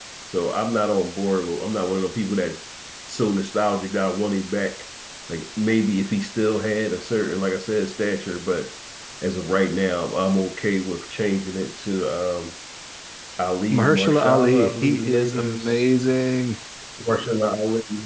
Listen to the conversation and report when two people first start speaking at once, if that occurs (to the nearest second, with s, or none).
14 s